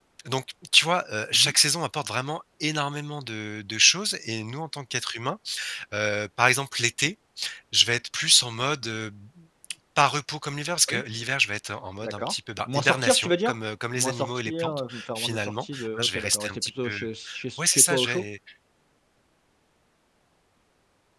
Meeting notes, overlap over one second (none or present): present